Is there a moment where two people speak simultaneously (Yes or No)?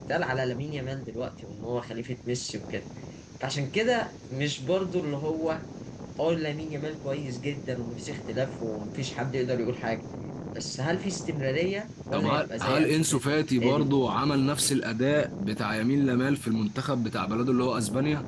Yes